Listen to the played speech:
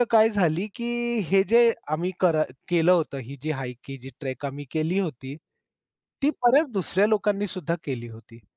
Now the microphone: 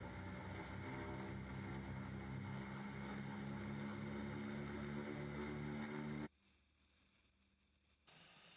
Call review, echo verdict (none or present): none